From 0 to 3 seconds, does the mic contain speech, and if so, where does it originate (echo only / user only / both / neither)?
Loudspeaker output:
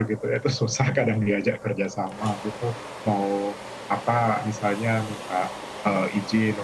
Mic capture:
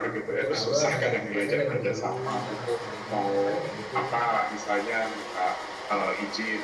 both